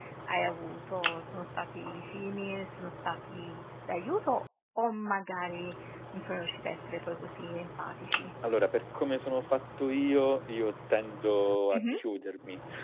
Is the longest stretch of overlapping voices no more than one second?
Yes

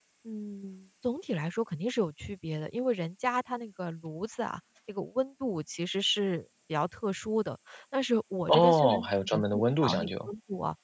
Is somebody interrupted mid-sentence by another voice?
Yes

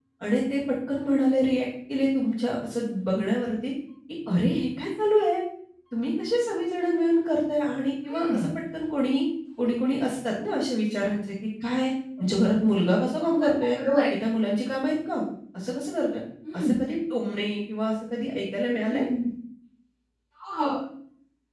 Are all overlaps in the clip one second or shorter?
Yes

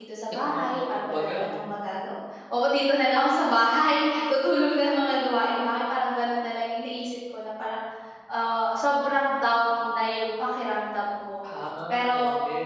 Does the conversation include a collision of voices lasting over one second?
Yes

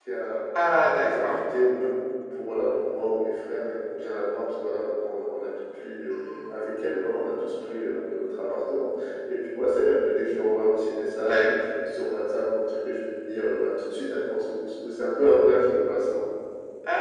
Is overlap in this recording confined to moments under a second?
Yes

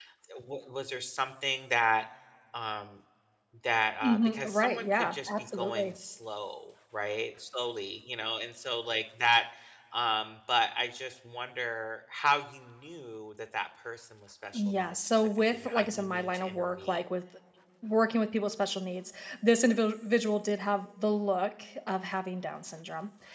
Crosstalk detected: Yes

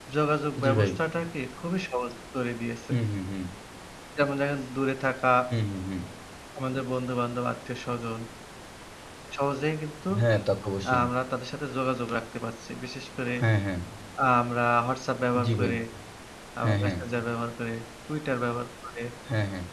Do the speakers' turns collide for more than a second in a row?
No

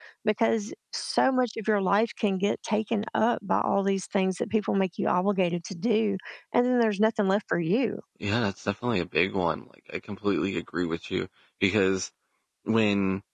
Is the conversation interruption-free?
Yes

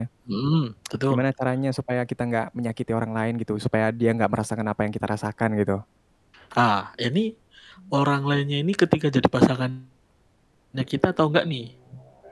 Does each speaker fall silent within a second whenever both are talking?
Yes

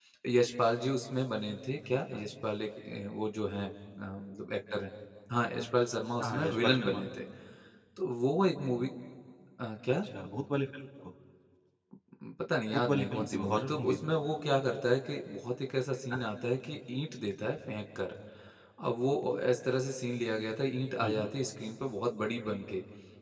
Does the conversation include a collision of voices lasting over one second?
Yes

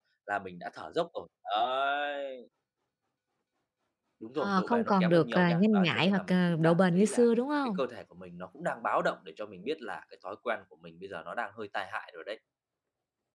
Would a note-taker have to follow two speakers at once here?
Yes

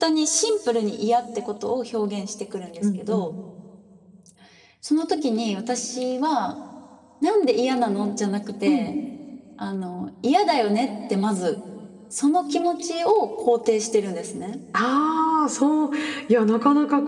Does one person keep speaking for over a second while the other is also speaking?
No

